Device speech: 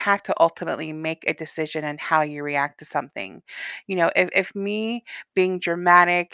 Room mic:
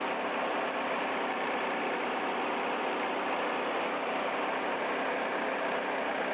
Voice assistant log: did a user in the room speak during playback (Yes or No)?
No